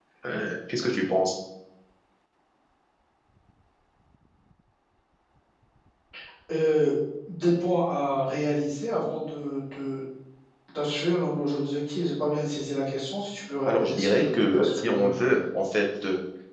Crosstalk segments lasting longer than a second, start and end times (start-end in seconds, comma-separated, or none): 13.7-15.1